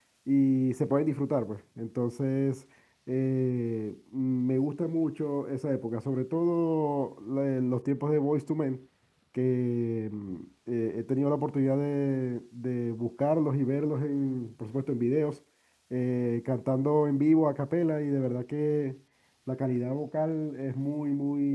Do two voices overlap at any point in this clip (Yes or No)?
No